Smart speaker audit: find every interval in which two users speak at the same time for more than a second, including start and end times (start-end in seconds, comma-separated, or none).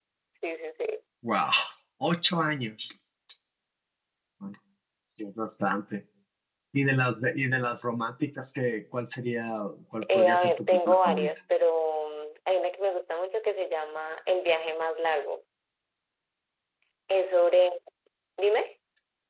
10.0-11.3